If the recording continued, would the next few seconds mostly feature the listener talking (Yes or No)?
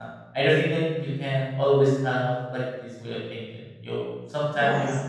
No